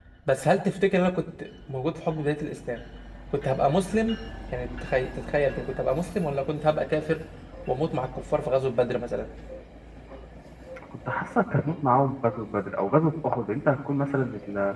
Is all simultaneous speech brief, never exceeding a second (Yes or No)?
Yes